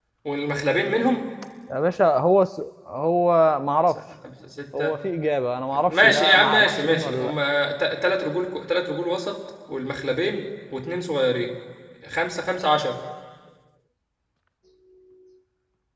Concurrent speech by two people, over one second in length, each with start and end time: 5.9-7.3

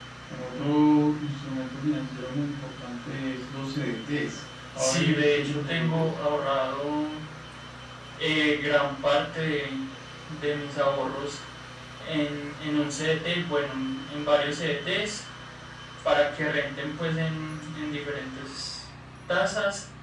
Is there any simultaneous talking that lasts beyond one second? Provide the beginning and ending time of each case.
4.8-6.1

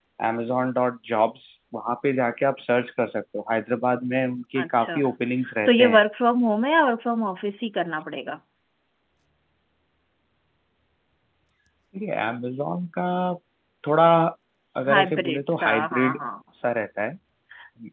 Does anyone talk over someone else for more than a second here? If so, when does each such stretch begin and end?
14.9-16.2

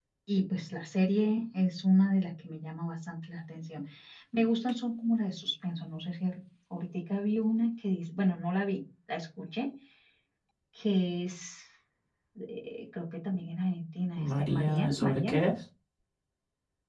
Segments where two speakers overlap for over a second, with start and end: 14.2-15.4

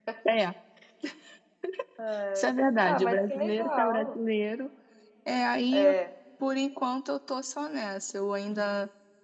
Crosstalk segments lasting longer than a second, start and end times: 2.8-4.2

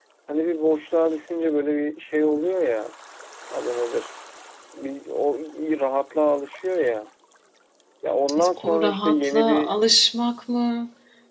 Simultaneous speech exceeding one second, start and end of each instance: 8.4-9.8

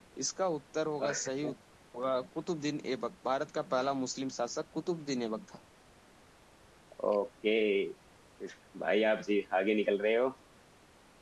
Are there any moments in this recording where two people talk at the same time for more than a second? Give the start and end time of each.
none

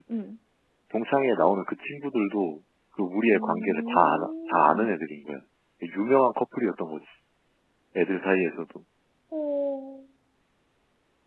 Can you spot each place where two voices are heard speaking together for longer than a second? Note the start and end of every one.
3.3-4.9

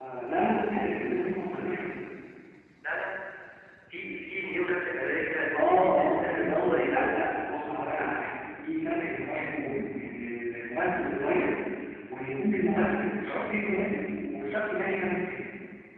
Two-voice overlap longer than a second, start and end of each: 5.5-7.1

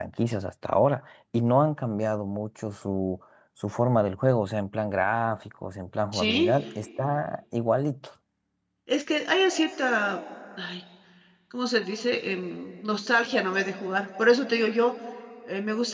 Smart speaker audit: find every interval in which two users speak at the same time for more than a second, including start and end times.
none

